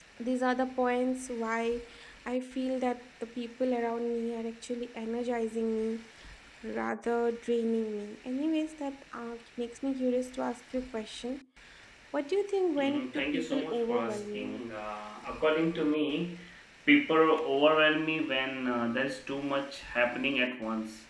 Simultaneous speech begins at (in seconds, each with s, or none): 12.8 s